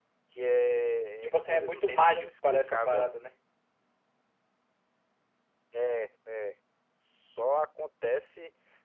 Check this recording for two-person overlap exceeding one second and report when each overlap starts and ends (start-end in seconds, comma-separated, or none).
1.2-3.1